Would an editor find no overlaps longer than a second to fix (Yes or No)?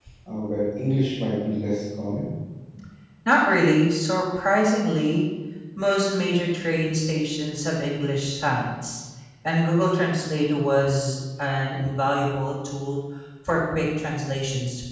Yes